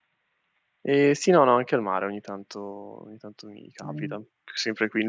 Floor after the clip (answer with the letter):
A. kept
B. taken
A